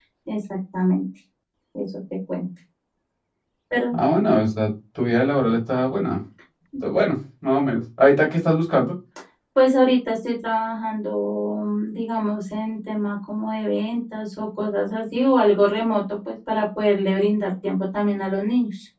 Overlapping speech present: No

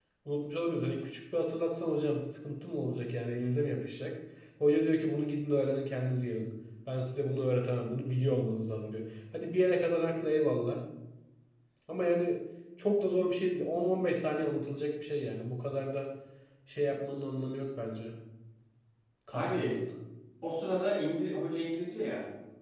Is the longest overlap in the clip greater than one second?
No

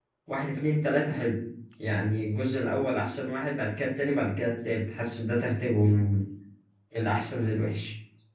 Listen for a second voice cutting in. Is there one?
No

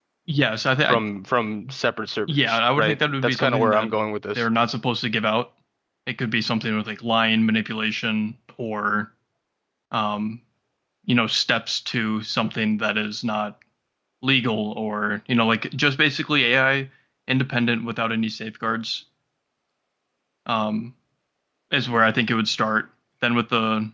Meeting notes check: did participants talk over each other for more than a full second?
Yes, from 2.3 s

